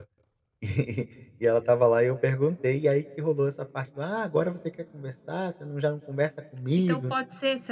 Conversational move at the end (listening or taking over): taking over